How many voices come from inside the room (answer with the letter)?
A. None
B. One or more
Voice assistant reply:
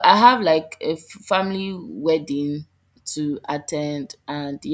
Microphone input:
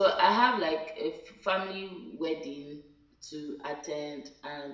A